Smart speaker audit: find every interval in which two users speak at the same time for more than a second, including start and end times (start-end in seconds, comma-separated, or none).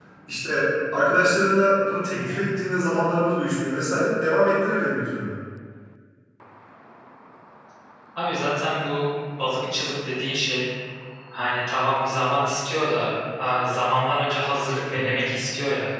none